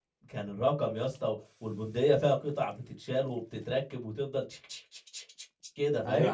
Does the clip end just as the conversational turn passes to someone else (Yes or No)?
Yes